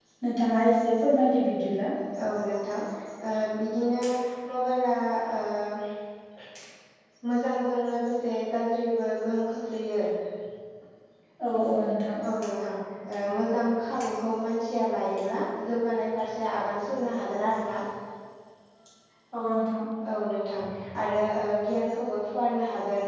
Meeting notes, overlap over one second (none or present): none